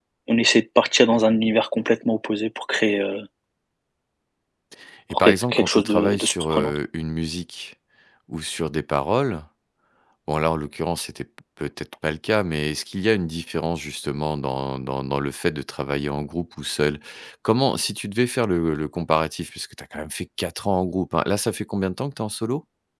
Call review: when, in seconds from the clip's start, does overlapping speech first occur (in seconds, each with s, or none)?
5.1 s